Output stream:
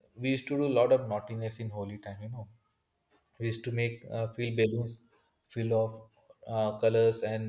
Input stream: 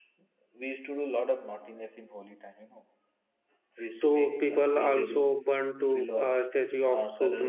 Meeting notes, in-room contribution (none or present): present